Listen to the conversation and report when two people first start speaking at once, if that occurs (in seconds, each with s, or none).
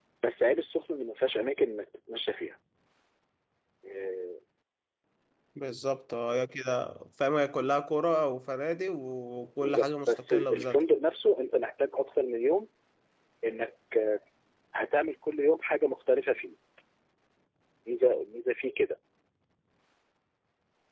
9.6 s